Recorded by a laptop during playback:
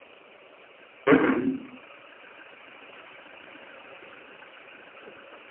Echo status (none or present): none